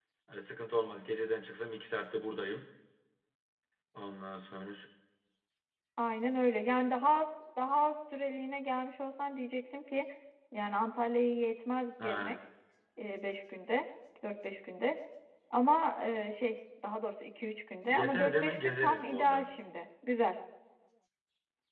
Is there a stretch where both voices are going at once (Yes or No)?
Yes